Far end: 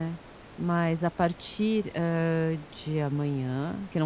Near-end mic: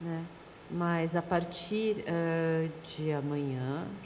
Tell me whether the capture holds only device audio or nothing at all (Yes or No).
Yes